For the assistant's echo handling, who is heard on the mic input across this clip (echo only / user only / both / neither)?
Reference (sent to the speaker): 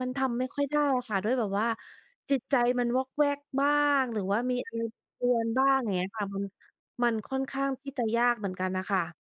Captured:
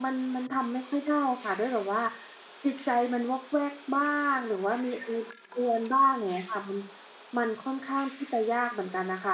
echo only